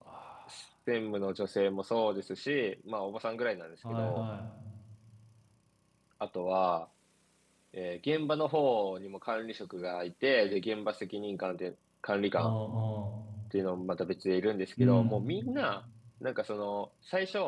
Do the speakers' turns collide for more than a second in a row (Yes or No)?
No